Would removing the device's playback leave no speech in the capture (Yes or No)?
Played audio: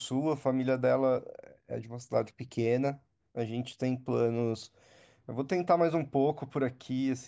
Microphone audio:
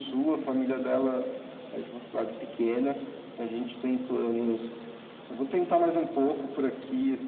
Yes